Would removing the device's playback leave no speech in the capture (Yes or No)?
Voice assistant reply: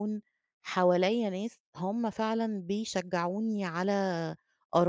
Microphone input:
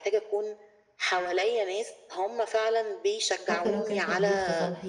No